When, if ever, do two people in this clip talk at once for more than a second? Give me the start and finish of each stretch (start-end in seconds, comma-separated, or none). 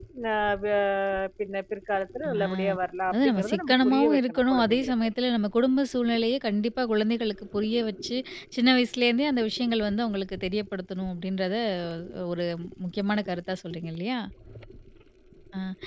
3.1-4.9